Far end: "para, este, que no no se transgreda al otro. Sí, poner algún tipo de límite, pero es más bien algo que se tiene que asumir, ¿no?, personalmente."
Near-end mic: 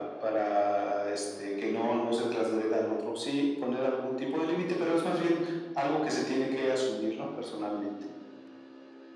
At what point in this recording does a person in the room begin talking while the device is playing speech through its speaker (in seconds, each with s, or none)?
none